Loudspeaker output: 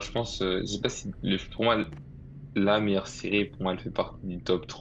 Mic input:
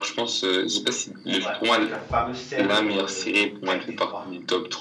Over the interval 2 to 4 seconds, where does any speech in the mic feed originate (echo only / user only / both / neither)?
both